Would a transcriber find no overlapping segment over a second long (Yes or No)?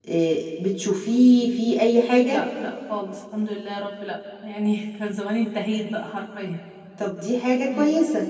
Yes